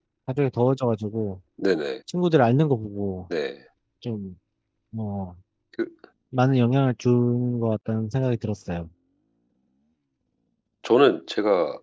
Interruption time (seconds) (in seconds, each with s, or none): none